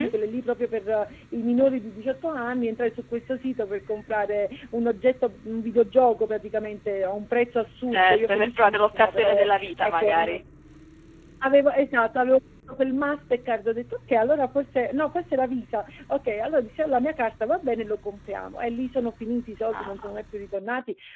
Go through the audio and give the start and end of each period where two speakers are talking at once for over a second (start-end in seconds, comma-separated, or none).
7.9-10.4